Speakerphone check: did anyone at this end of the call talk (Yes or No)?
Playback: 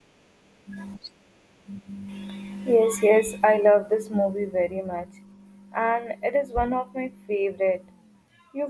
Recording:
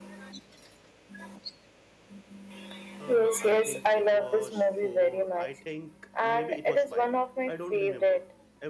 Yes